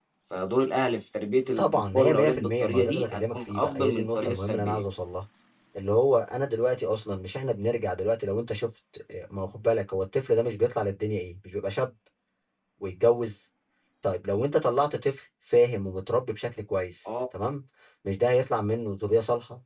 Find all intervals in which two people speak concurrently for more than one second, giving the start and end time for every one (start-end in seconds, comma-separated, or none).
1.6-4.8